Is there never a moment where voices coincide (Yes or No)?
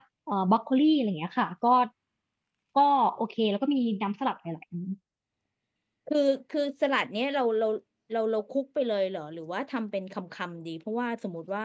Yes